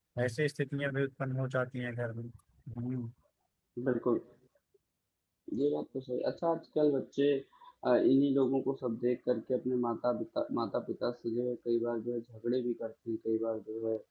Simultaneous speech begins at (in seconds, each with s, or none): none